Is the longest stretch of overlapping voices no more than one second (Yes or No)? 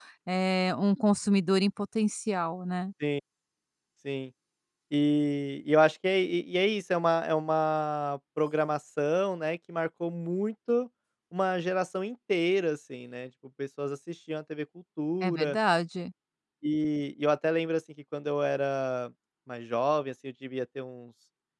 Yes